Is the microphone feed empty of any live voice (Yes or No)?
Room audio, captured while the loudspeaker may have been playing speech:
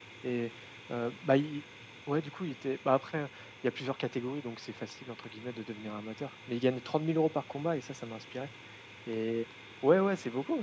No